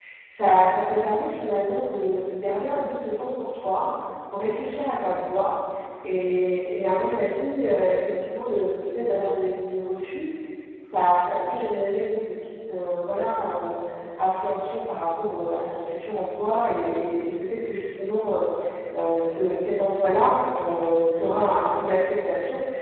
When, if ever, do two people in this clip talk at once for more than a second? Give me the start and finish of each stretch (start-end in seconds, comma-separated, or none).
none